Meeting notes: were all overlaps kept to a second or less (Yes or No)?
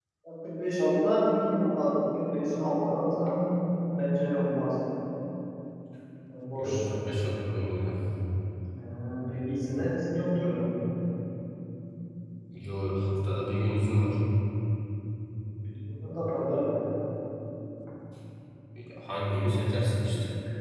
Yes